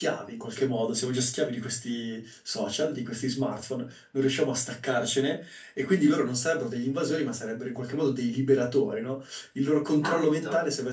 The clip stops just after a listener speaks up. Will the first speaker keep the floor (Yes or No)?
Yes